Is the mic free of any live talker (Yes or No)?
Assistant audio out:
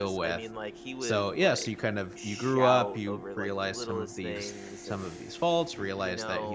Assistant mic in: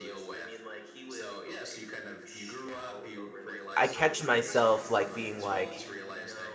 No